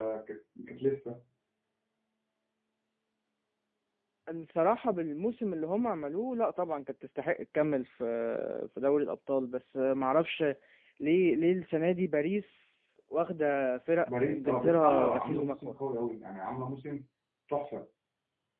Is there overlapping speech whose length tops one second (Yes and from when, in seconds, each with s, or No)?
Yes, from 14.0 s